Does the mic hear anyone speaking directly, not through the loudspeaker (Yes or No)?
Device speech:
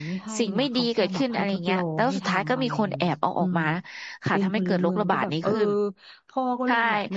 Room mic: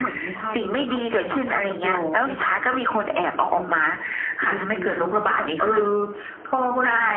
No